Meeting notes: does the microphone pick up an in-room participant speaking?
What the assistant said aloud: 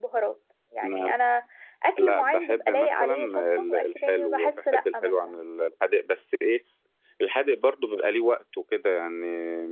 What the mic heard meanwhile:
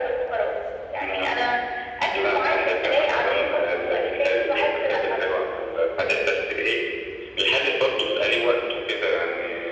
No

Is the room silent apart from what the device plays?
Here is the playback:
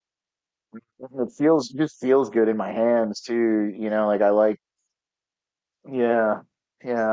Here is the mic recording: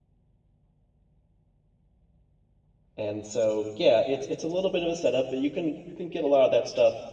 No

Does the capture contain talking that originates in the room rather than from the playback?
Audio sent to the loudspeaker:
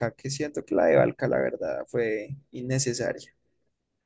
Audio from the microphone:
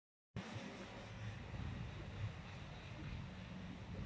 No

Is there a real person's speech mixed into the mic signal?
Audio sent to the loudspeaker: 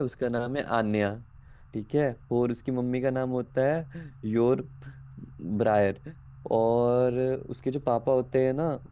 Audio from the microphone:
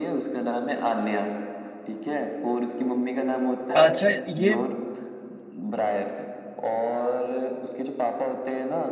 Yes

